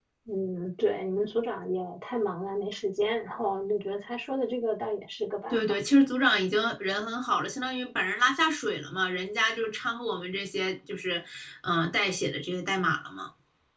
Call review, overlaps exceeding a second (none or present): none